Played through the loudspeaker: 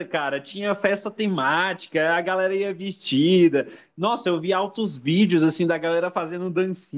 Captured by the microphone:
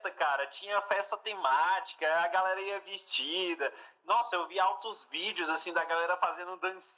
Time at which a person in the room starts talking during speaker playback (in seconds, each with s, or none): none